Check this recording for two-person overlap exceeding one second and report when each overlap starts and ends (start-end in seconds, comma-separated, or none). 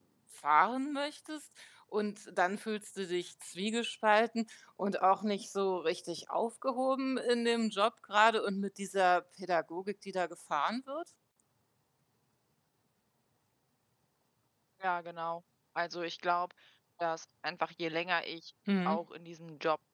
none